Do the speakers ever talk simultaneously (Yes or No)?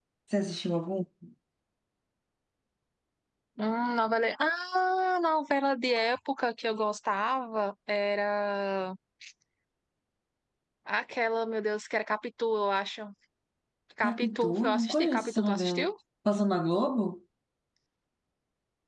Yes